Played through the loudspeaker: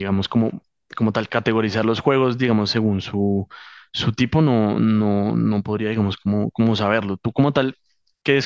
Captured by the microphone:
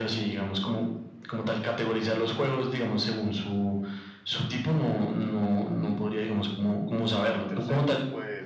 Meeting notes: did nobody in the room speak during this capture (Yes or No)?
No